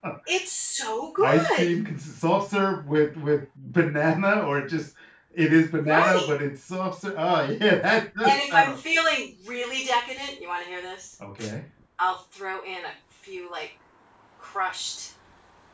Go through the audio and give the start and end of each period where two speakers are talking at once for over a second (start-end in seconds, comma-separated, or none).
none